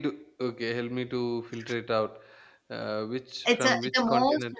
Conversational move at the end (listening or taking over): taking over